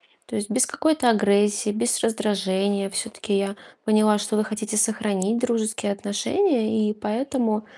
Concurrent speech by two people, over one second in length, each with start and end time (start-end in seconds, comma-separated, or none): none